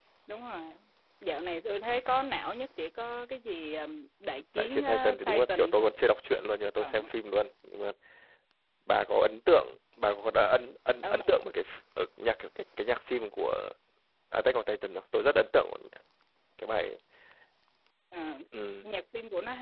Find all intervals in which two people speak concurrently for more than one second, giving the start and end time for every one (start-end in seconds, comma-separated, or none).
4.6-5.9